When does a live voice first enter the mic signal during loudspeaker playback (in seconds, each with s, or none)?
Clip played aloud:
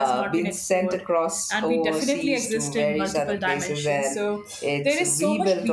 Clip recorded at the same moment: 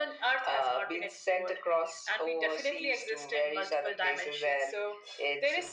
none